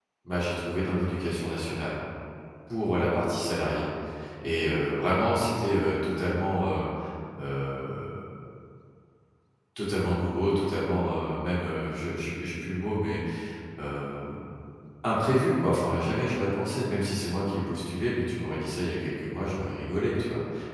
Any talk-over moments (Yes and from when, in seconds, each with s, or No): No